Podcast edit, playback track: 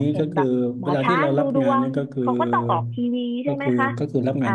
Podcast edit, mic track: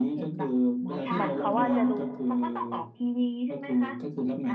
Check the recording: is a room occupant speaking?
Yes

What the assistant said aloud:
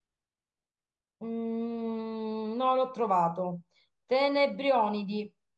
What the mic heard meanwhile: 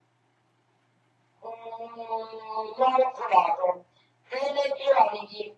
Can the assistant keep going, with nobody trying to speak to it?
Yes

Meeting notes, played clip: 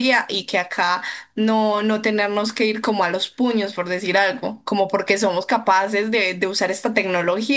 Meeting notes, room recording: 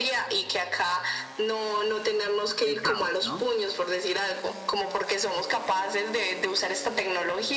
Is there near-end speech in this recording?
Yes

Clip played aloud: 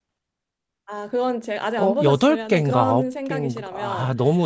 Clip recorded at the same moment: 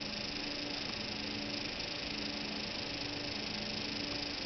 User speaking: No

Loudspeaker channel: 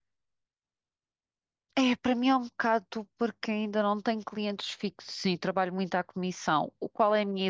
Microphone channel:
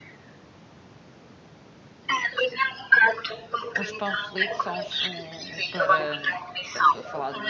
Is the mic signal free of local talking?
No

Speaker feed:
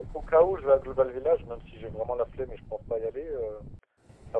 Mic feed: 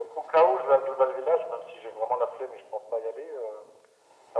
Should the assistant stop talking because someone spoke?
No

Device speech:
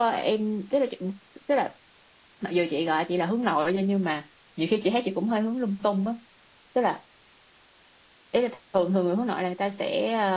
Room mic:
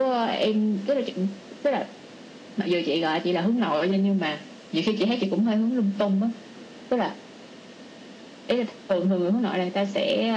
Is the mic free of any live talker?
Yes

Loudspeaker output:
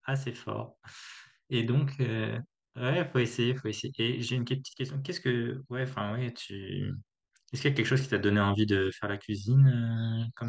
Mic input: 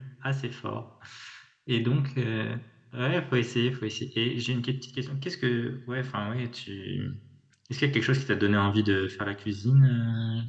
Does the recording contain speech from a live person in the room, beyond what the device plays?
No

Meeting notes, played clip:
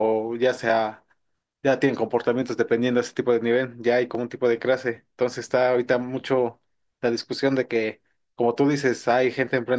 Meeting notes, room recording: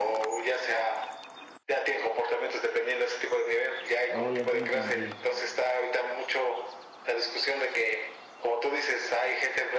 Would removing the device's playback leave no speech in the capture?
No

